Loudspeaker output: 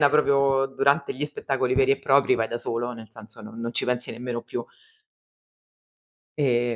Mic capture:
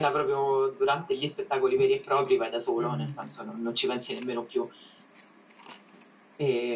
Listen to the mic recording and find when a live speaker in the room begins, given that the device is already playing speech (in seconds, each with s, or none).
2.8 s